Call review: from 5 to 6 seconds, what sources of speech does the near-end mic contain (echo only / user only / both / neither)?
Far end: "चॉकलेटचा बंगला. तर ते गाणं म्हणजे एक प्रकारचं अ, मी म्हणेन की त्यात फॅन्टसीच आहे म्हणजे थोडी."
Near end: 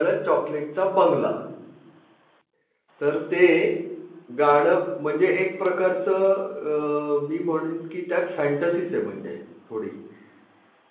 echo only